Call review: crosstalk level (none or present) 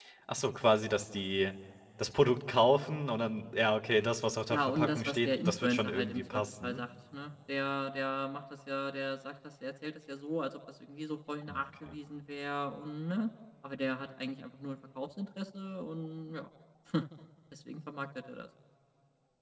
present